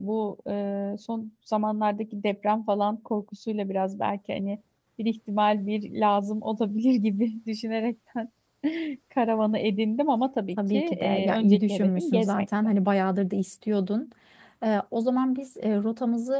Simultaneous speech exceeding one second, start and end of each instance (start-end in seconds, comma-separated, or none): 10.6-12.4